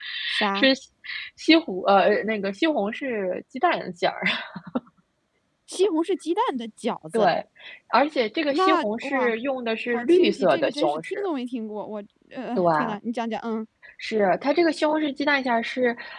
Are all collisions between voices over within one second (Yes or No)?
No